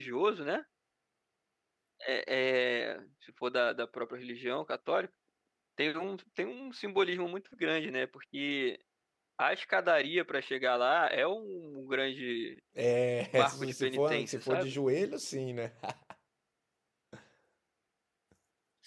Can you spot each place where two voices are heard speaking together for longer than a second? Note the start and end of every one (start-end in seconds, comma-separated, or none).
13.3-14.8